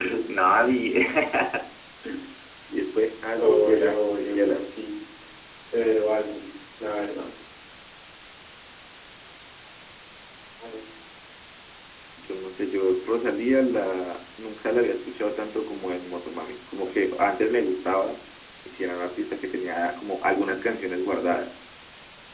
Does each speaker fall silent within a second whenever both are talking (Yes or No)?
No